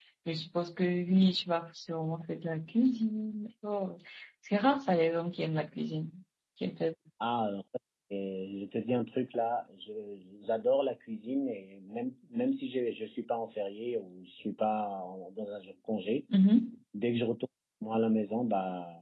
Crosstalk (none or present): none